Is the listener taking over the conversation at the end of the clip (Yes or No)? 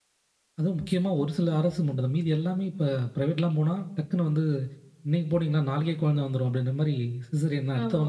Yes